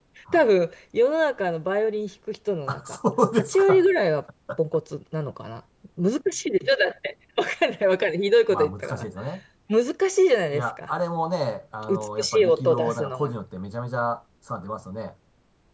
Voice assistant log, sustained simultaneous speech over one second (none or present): present